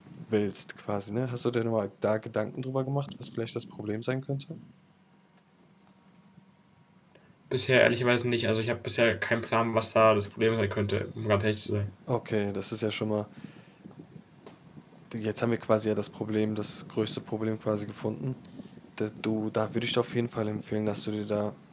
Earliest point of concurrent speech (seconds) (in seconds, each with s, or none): none